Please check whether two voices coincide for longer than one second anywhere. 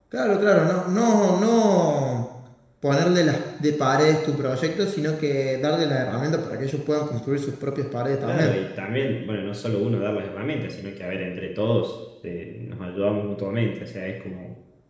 No

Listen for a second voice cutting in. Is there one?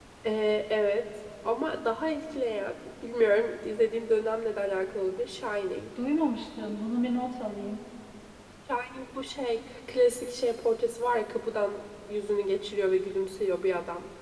No

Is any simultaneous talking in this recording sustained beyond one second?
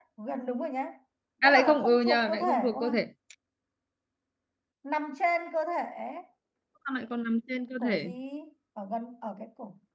Yes, from 1.4 s

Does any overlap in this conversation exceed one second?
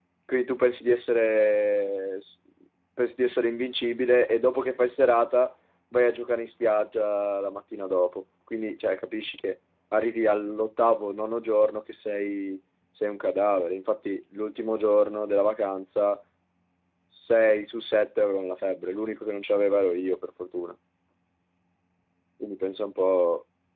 No

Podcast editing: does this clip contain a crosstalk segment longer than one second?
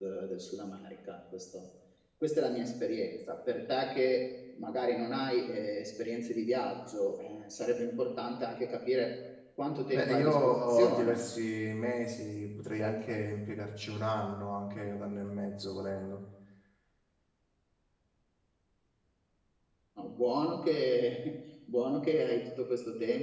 Yes, from 9.9 s

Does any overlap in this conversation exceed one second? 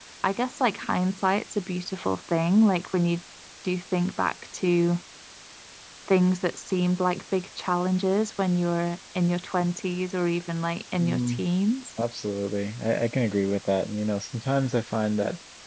No

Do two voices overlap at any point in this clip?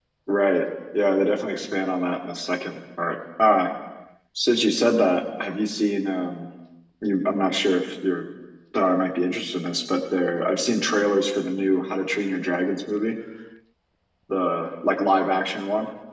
No

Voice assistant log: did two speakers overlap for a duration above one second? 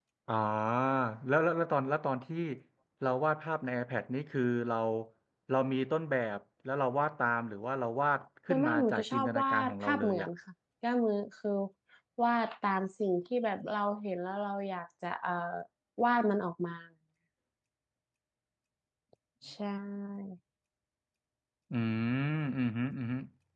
Yes, from 8.5 s

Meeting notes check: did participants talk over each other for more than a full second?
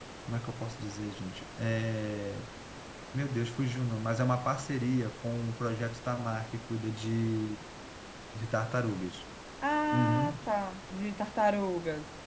No

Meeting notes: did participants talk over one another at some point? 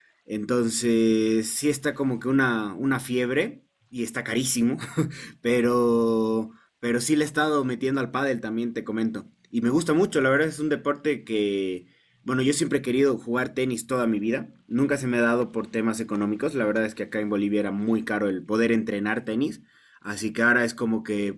No

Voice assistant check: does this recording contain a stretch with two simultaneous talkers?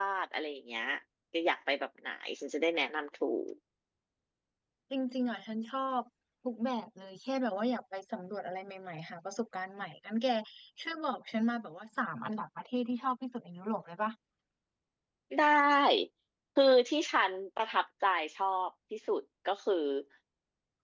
No

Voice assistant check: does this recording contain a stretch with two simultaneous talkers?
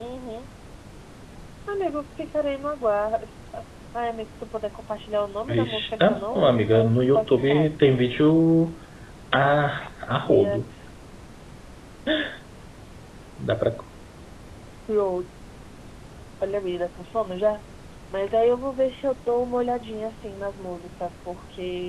Yes, from 5.5 s

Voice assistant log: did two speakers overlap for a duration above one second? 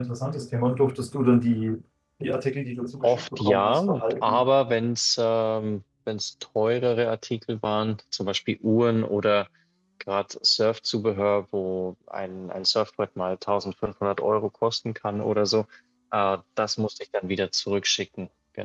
Yes, from 3.0 s

